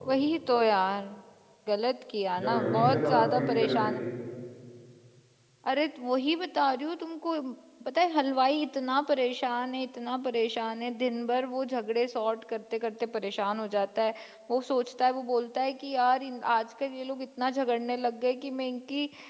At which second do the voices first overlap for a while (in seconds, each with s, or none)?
2.4 s